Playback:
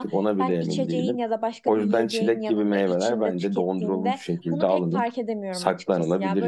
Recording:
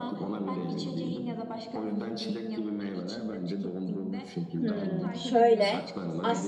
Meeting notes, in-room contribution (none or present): present